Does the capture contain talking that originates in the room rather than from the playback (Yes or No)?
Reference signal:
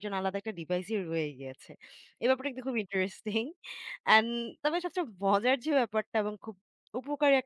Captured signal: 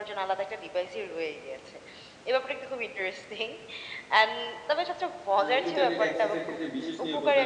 Yes